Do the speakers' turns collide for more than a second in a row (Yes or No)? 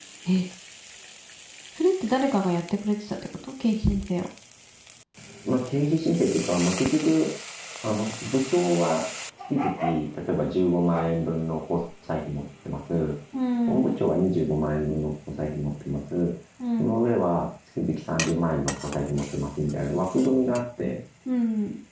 No